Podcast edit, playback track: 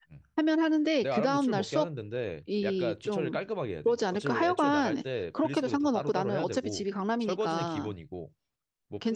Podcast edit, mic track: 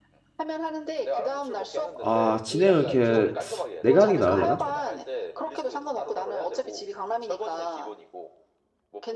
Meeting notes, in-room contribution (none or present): present